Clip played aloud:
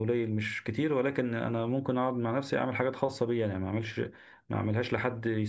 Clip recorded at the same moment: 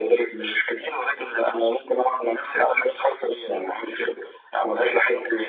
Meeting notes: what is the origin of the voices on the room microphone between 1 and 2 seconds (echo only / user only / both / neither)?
echo only